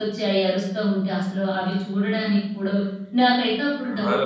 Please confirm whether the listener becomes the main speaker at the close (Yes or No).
No